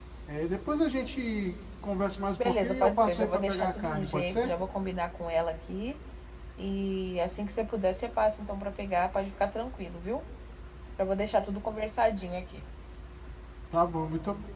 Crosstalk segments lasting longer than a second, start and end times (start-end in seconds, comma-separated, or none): 2.4-4.5